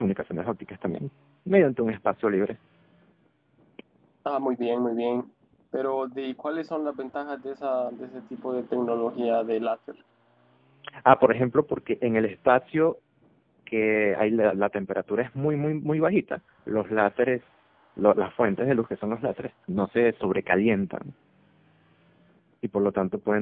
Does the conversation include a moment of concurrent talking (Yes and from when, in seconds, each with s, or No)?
No